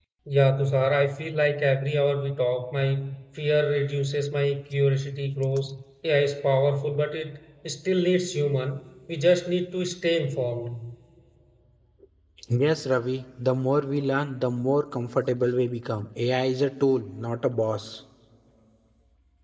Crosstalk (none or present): none